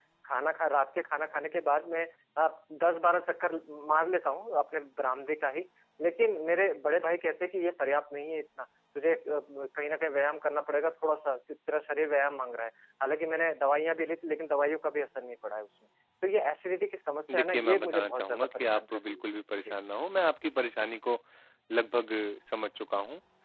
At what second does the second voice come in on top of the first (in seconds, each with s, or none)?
17.3 s